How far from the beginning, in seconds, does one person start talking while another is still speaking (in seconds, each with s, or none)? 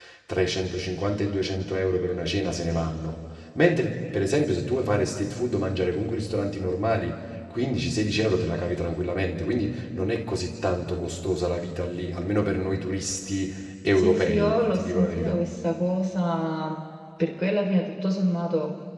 14.0 s